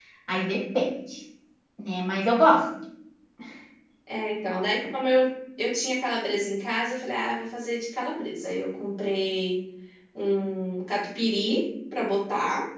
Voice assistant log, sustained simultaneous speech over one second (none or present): none